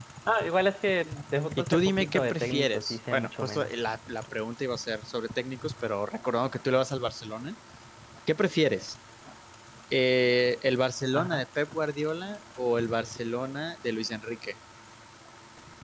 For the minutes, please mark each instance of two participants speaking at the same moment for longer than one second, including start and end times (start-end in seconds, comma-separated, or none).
1.6-3.7